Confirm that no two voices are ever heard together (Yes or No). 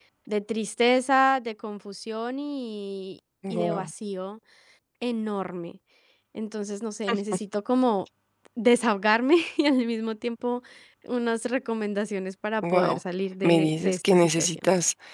No